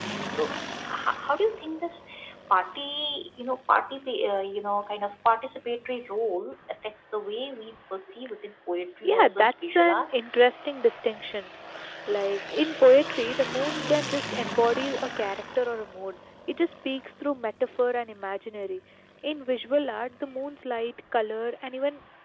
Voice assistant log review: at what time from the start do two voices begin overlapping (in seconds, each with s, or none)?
9.0 s